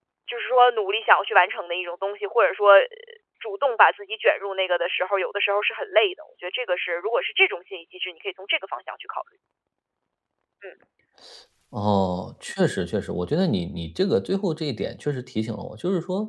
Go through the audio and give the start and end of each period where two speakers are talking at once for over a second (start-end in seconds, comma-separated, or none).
none